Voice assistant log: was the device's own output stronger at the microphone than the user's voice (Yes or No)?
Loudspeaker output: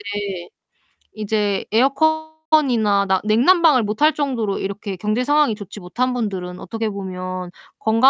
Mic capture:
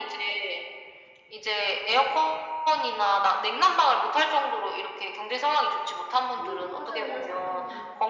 Yes